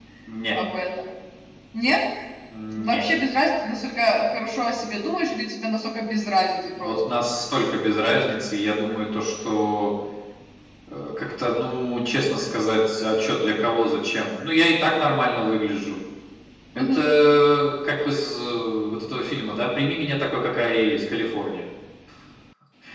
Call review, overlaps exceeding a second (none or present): none